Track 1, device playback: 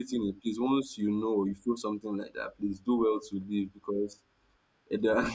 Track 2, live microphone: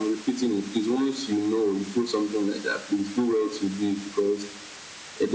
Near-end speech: none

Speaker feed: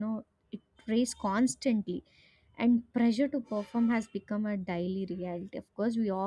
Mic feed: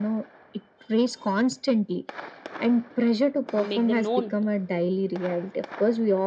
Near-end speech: present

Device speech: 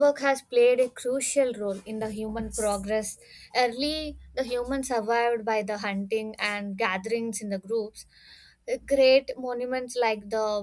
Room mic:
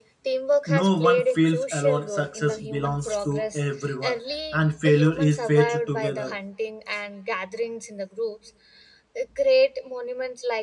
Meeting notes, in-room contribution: present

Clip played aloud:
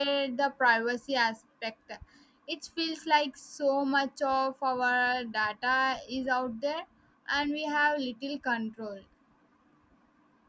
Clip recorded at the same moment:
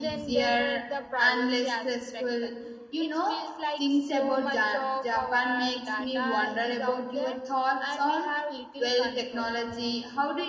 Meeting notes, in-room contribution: present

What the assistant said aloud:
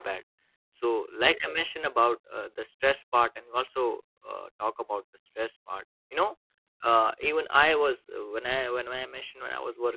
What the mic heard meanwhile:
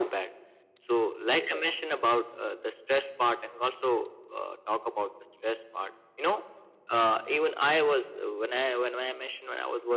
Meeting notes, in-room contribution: none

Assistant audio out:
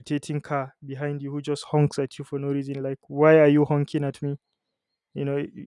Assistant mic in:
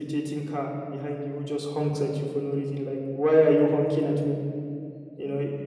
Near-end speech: none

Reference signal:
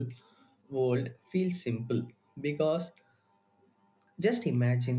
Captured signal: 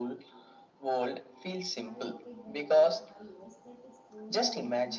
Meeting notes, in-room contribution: present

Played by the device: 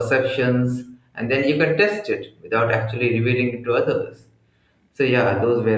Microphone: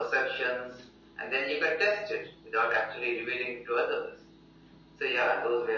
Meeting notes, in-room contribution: none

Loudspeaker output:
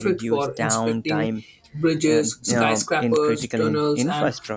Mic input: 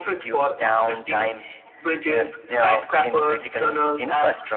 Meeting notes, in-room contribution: none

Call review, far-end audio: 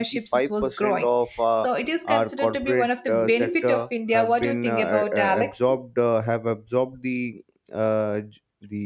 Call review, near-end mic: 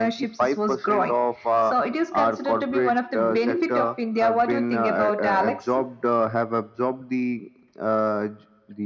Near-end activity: none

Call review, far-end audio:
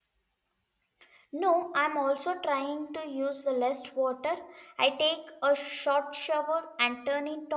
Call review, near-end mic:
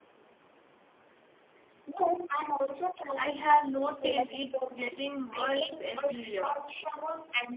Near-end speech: present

